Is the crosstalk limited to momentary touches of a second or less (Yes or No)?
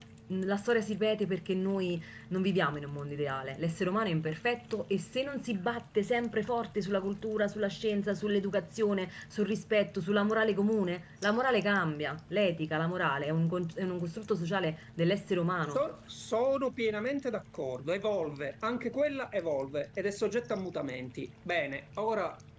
Yes